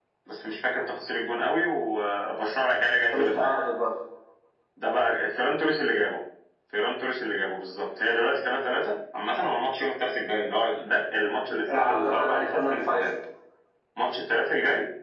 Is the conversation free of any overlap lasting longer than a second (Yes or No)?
No